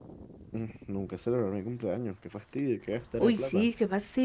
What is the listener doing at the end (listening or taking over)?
taking over